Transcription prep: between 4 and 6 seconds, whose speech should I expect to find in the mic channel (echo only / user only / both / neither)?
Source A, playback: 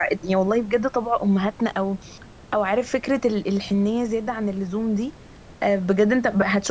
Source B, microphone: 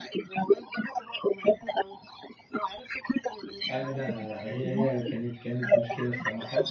both